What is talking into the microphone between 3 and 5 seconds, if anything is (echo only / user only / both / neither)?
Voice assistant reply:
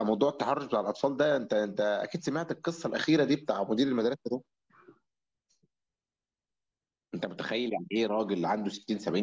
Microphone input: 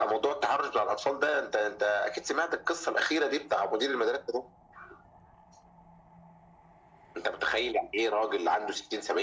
echo only